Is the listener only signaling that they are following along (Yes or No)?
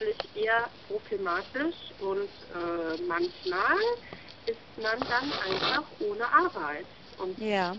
Yes